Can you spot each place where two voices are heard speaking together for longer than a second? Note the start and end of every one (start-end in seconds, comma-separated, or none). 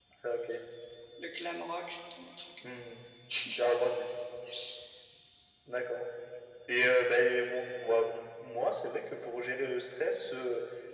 none